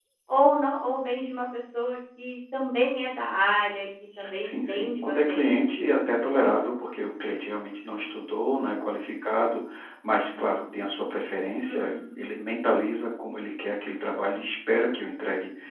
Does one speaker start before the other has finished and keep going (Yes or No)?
Yes